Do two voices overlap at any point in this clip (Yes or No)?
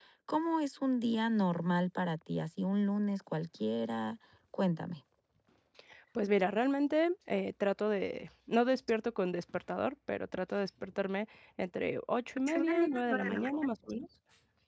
Yes